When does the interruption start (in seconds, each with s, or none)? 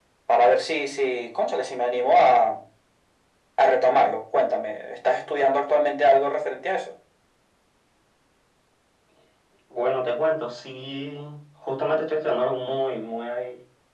none